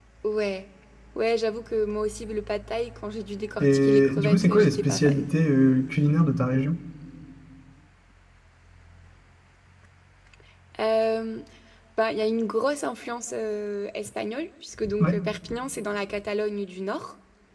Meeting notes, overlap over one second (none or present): present